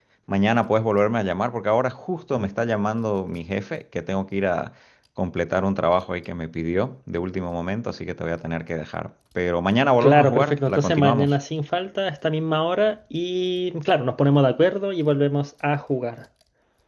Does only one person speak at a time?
No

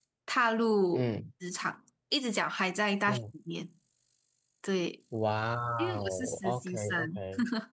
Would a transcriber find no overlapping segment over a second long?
No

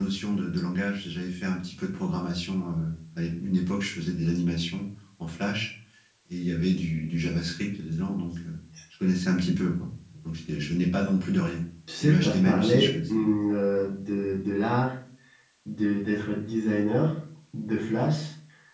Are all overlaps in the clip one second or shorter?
No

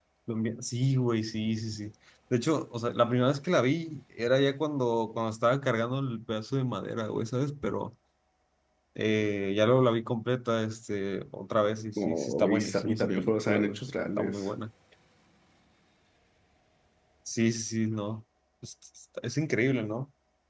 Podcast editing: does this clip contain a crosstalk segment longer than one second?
Yes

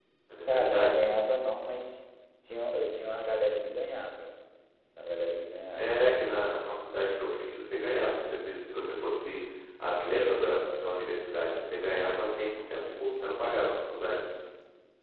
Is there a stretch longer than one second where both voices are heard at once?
No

